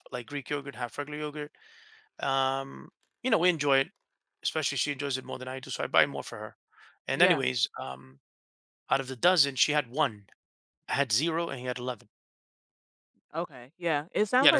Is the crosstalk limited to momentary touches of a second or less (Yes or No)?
Yes